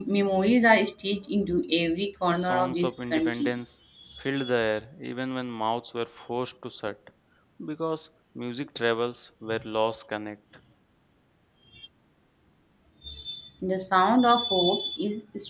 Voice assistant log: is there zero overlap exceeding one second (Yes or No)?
No